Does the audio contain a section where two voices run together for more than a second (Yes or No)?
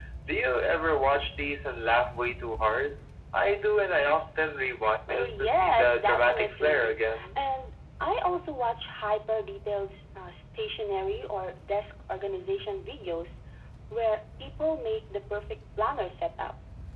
Yes